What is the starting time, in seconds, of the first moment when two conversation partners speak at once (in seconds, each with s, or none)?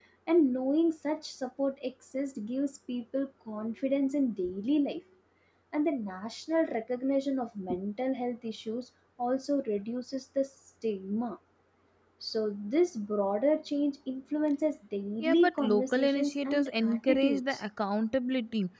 15.2 s